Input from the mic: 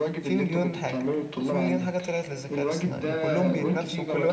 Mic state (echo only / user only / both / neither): both